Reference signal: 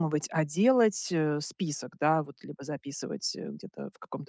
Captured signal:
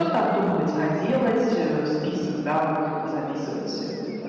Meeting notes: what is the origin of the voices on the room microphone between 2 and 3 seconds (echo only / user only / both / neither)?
echo only